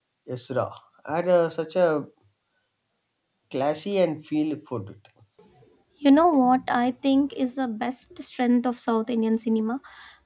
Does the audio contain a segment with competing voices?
No

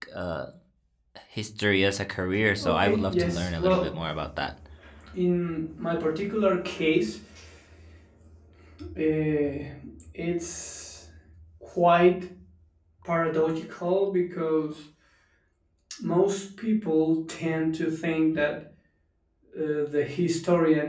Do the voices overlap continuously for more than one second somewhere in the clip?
Yes, from 2.5 s

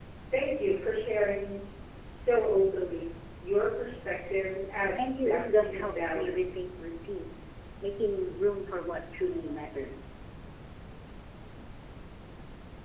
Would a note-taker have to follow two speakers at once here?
Yes, from 5.0 s

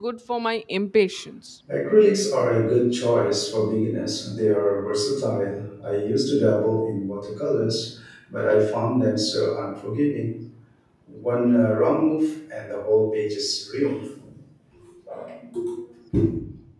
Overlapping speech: No

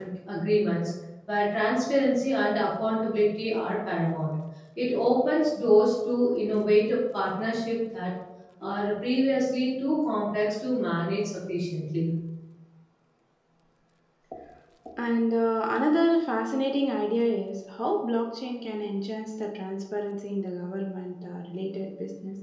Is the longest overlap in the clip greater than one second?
No

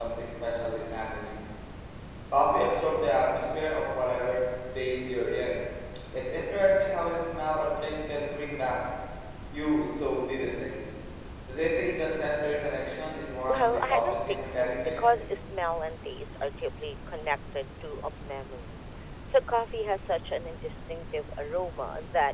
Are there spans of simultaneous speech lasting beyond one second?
Yes, from 13.5 s

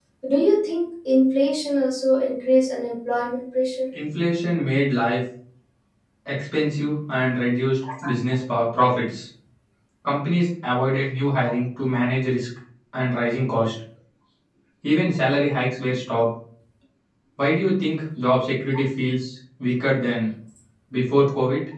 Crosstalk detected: No

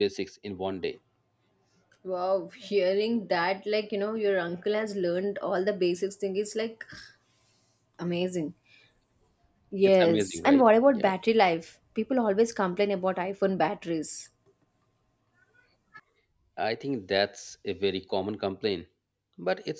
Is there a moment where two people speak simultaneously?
Yes, from 9.8 s

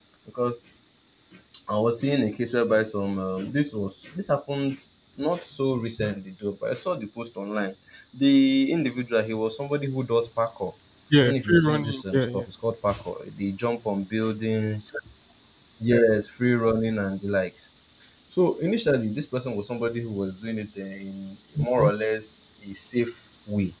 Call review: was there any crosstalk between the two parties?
Yes, from 11.2 s

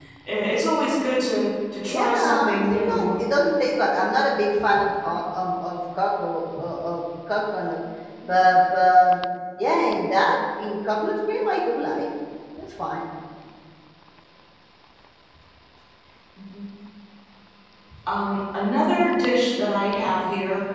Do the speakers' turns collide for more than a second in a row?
Yes, from 1.9 s

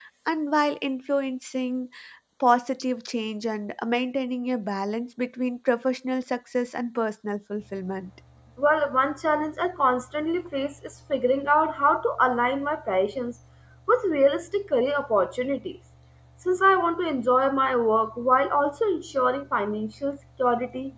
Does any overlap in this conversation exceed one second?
No

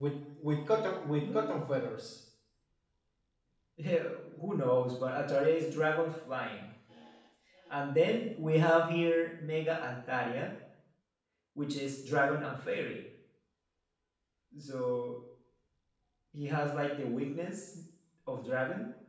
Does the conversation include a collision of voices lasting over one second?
No

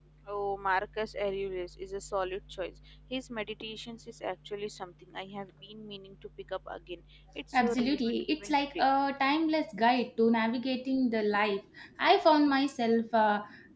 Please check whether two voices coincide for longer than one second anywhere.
Yes, from 7.5 s

